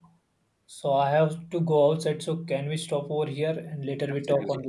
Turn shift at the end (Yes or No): Yes